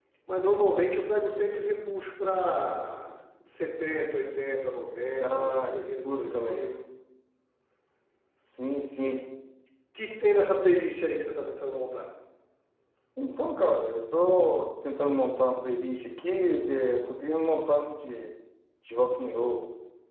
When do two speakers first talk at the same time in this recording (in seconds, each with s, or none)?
5.2 s